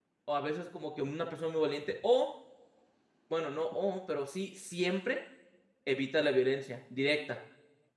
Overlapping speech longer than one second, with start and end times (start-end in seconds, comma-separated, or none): none